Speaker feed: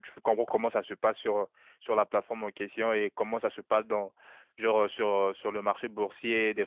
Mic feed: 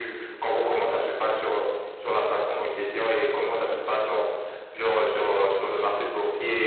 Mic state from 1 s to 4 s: echo only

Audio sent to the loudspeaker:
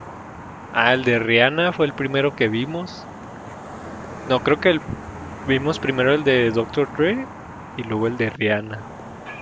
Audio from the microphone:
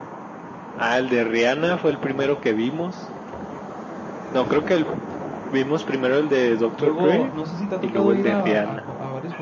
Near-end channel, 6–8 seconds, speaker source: both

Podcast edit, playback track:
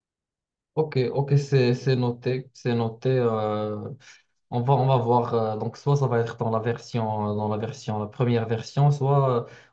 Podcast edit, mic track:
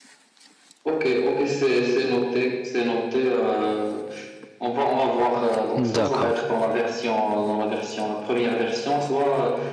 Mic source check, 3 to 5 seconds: echo only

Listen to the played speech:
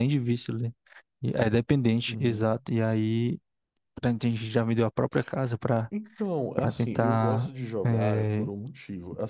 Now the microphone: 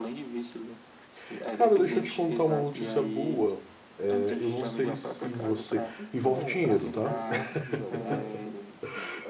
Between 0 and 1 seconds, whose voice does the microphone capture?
echo only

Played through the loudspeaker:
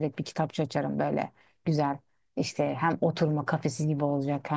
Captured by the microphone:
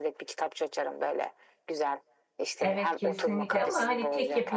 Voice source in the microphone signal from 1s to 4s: both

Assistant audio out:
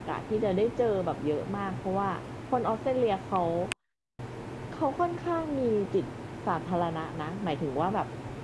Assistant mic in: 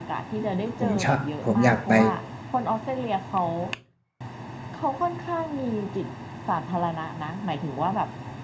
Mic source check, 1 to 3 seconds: both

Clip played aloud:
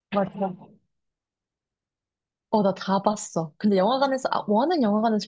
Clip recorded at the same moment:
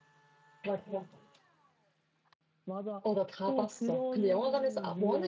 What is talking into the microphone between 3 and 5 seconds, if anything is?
both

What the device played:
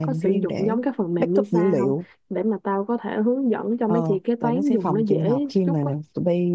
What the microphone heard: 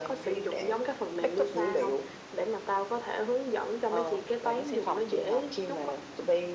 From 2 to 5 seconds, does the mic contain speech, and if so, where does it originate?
echo only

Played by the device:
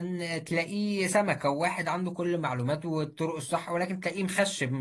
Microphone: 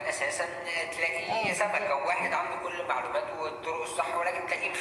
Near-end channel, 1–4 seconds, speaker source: both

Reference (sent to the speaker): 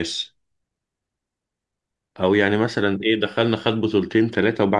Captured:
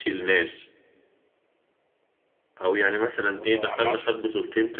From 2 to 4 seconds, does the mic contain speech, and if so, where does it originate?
both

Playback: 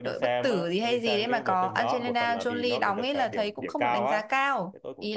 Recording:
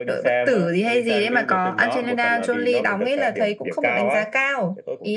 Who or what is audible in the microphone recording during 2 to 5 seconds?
echo only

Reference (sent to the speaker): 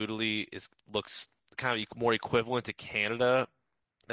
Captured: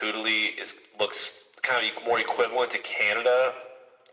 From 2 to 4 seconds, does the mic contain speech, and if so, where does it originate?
echo only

